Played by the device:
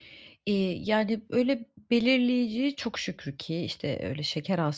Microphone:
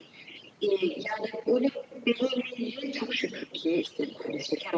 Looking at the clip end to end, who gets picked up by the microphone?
echo only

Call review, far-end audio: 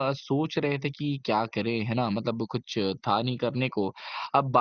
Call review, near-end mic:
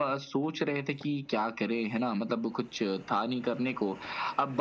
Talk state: echo only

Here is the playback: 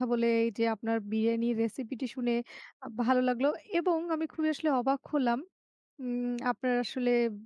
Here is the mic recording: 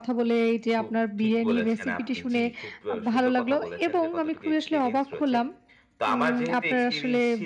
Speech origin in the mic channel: both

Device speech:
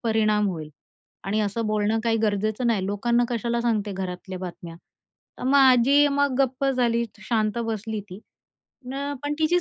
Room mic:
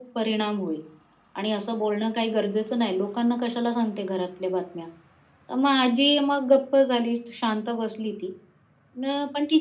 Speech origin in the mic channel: echo only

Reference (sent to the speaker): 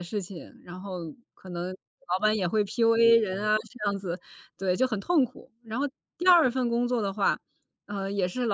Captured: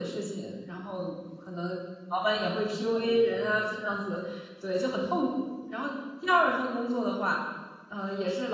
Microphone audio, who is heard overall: echo only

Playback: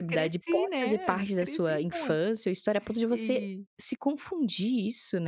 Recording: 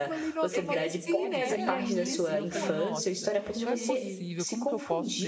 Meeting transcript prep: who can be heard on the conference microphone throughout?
both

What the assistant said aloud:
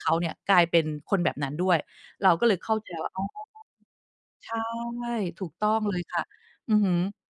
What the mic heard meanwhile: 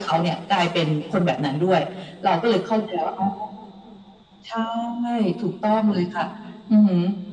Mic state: echo only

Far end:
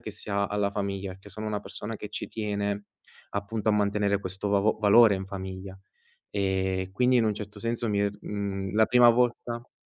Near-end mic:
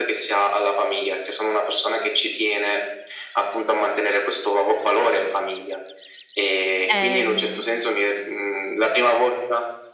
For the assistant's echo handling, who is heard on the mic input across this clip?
both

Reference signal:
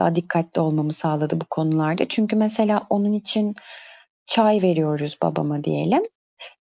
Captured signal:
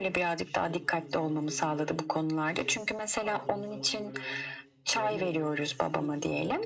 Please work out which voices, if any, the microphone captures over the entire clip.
both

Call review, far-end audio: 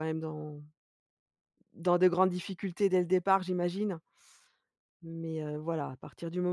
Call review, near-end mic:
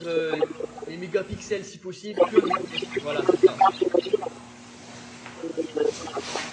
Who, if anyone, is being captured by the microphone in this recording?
both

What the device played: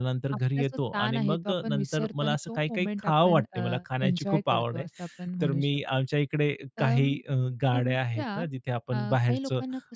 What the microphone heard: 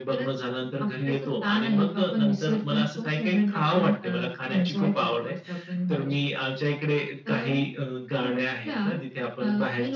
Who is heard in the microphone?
echo only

